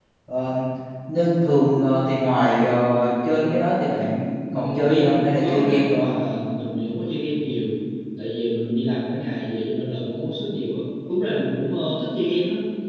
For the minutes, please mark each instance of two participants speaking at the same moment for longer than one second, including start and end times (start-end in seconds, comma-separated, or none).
4.5-6.1